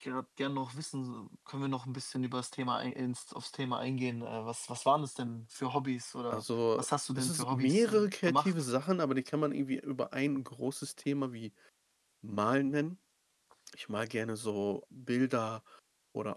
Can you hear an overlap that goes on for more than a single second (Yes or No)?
Yes